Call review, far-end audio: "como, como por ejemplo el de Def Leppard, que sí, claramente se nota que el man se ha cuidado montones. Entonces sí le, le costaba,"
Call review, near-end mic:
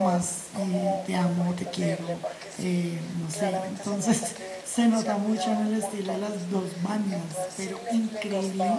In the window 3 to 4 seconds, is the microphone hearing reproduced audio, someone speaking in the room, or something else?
both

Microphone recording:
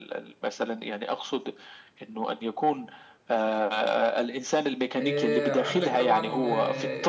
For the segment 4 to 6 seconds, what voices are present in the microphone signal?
both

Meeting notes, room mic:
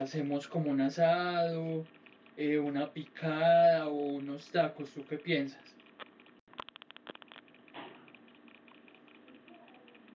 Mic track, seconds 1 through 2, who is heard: user only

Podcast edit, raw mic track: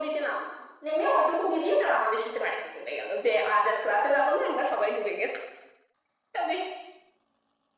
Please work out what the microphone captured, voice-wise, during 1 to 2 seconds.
echo only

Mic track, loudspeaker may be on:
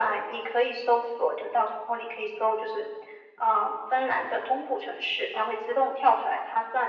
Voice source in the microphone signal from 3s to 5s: echo only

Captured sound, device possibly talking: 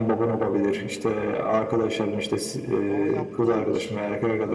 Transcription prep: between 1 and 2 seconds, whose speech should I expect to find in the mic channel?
echo only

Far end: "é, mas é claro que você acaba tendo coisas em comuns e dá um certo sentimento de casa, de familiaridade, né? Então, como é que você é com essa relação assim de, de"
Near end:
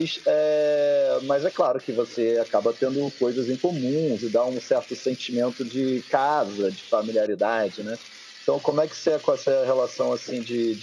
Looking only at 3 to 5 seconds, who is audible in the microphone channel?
echo only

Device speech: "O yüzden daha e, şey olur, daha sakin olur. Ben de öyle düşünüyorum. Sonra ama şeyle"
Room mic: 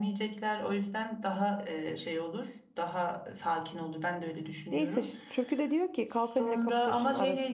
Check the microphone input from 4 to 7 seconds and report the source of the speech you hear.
both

